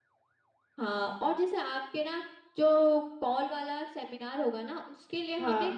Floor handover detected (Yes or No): No